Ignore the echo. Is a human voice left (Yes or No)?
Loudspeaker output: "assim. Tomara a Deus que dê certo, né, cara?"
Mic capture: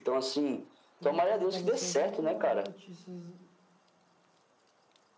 Yes